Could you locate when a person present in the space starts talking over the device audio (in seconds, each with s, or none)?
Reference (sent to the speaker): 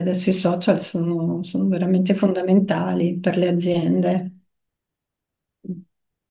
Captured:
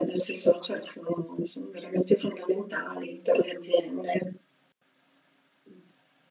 none